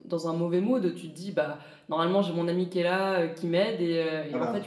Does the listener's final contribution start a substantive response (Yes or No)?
No